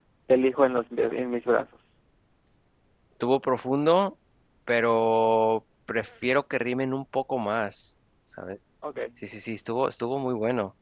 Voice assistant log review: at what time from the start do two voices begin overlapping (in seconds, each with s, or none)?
none